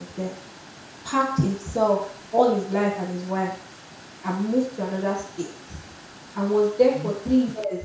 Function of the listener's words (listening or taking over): listening